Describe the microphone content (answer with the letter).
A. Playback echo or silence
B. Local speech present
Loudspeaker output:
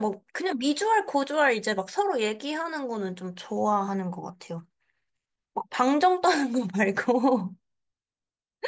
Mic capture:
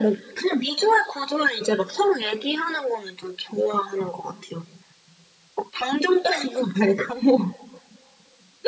A